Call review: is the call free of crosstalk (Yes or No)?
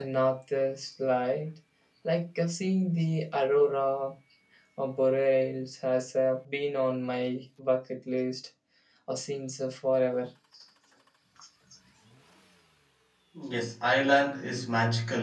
Yes